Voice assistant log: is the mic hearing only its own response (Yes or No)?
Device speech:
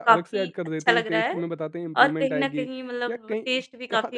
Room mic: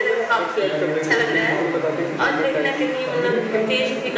No